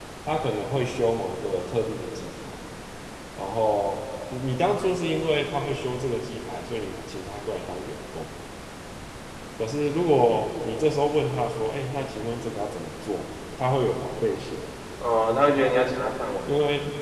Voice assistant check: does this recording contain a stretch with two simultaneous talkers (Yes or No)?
No